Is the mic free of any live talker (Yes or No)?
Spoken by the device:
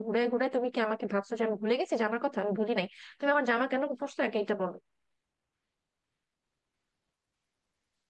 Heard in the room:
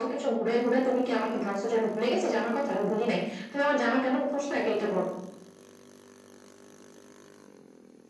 Yes